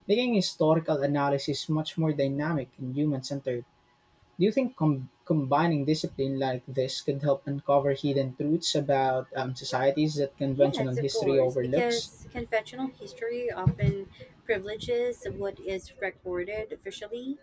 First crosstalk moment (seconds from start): 11 s

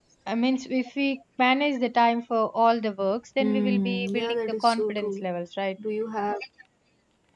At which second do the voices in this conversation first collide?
3 s

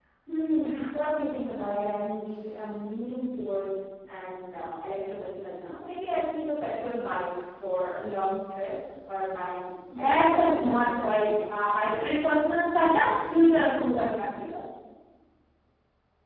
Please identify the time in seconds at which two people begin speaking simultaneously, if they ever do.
10 s

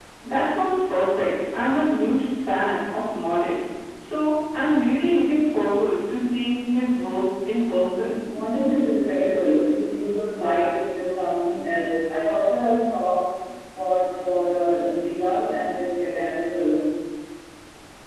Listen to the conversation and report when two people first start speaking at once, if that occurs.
none

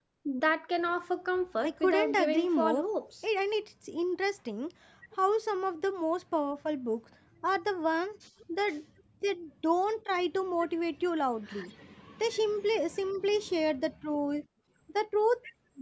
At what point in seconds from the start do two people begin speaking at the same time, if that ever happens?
2 s

